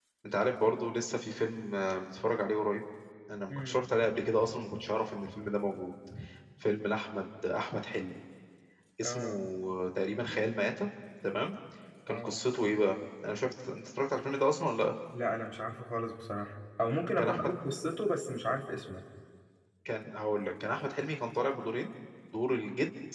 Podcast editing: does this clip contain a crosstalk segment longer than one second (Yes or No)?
No